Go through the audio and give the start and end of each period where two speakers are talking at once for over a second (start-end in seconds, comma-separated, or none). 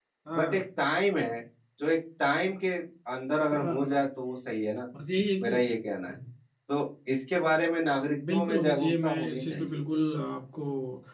8.3-9.8